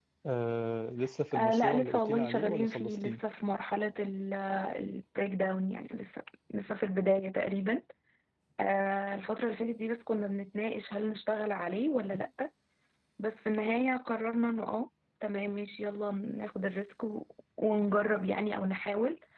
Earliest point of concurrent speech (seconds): 1.3 s

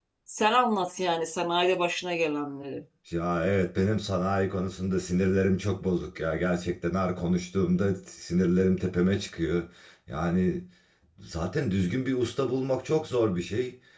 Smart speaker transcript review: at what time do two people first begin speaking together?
none

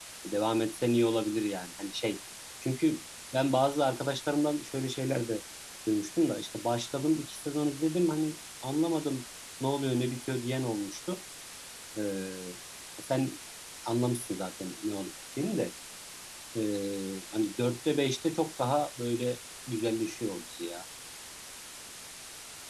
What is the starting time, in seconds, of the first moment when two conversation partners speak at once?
none

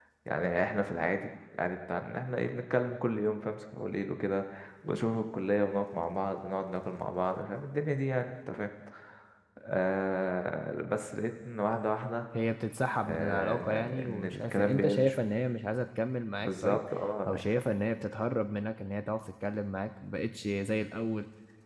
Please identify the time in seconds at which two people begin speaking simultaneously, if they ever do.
13.0 s

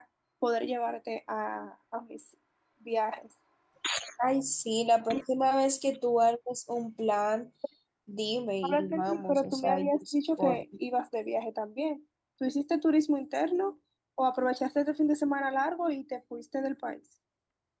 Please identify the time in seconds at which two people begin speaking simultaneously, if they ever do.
8.6 s

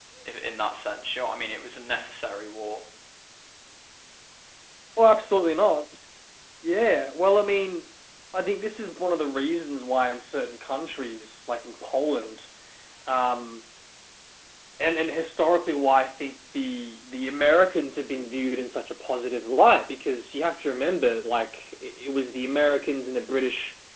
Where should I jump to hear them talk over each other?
none

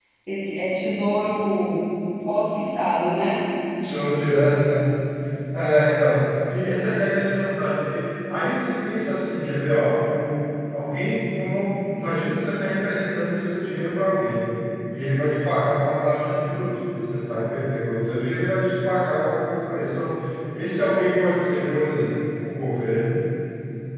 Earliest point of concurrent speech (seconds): none

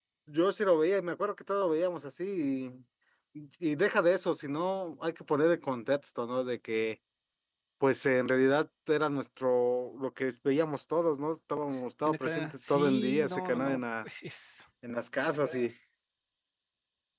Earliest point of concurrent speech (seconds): 12.1 s

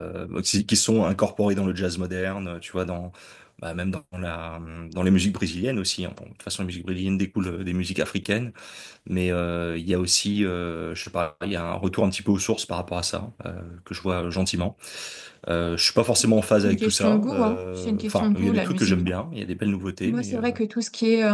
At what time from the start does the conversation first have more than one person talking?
16.6 s

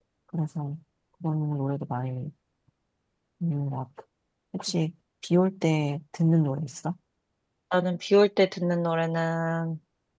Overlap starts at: none

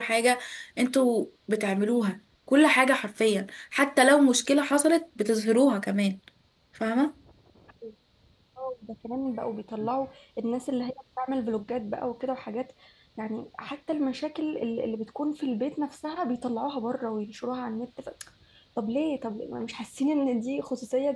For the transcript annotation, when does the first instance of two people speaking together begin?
none

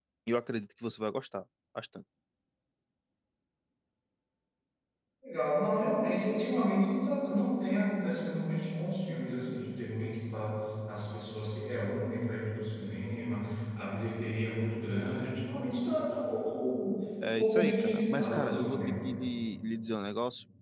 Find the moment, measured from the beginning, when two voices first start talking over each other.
17.4 s

